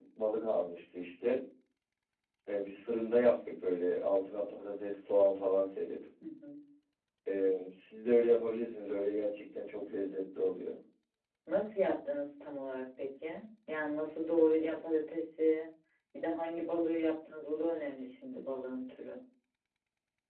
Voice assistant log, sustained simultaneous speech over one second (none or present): none